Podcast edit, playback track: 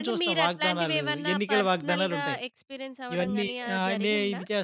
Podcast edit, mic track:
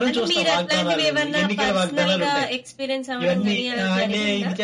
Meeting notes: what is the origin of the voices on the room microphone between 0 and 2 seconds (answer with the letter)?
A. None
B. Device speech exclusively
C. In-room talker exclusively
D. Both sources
B